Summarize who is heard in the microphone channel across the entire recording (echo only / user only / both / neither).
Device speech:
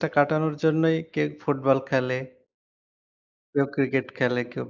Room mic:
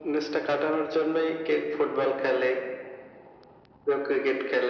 echo only